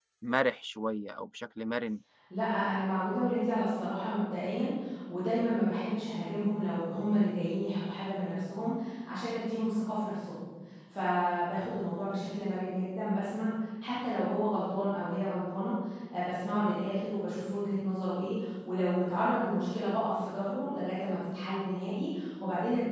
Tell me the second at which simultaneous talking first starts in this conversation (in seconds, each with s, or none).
none